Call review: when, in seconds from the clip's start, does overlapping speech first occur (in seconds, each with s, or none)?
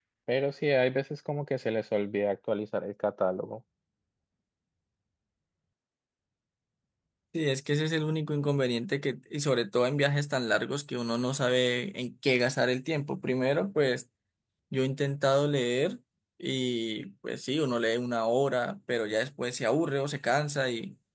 none